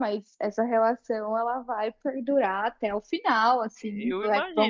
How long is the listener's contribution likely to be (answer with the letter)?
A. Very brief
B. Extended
B